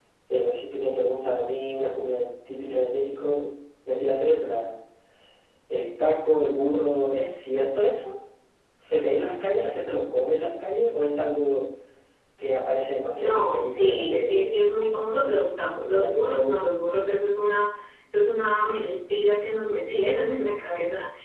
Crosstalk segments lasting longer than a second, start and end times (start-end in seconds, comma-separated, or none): 13.2-14.7